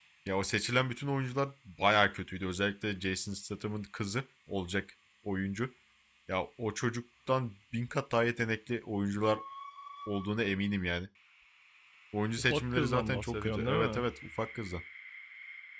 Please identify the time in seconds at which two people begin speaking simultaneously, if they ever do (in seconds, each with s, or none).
12.4 s